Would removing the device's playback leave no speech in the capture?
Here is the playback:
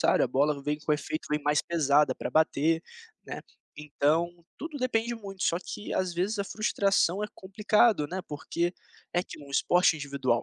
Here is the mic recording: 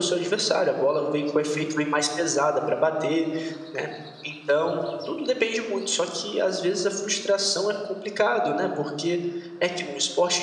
Yes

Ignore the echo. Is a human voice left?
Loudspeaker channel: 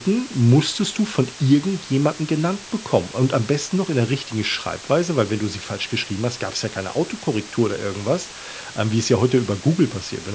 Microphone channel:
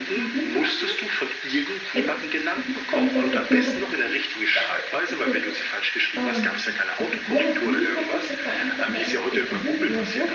Yes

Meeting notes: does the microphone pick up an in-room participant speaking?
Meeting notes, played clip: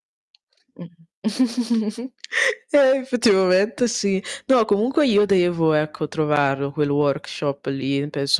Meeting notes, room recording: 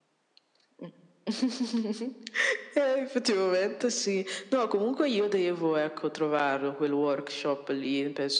No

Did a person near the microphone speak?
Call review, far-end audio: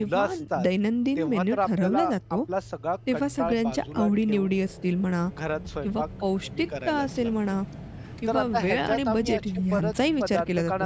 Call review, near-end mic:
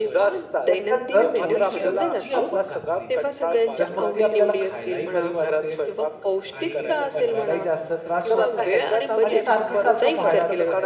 Yes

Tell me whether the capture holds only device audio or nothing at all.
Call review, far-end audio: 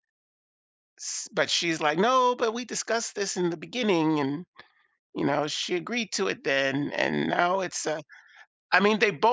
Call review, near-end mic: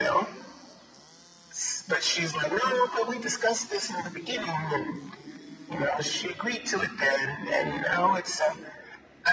Yes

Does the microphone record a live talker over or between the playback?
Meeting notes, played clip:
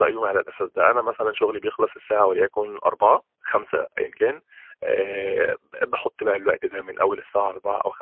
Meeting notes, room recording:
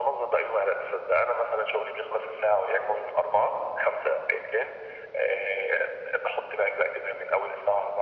No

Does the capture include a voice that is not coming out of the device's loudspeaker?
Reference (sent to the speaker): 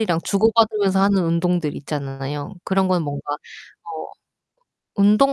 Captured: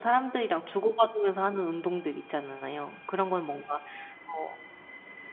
No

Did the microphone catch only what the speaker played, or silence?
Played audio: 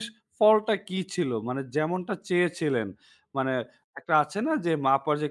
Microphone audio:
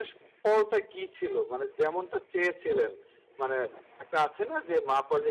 Yes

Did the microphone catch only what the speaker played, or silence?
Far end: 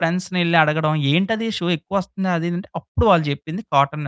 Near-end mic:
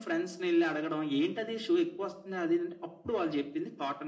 Yes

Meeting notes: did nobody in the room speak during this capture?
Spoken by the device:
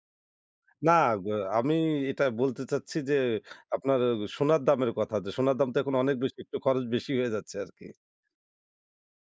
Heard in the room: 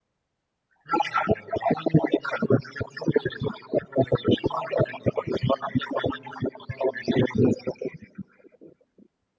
Yes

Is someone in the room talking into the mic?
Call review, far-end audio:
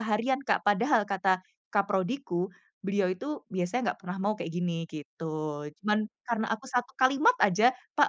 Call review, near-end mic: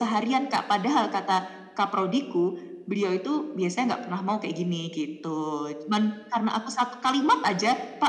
No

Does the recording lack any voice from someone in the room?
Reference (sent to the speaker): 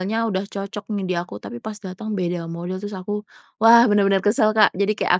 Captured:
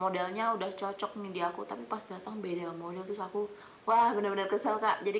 Yes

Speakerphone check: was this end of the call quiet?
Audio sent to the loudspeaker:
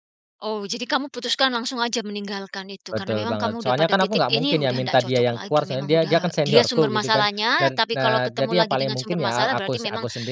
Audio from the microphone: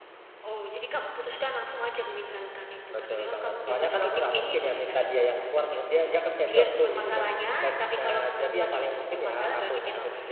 Yes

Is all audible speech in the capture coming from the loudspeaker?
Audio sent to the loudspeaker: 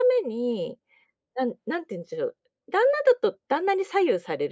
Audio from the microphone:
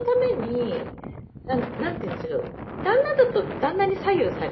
Yes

